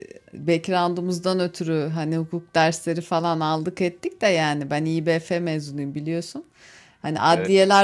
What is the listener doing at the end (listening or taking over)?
listening